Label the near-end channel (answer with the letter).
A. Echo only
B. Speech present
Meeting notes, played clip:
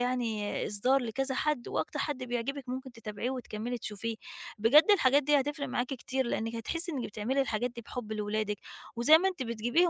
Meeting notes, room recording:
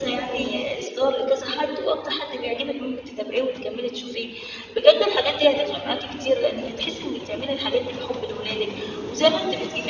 A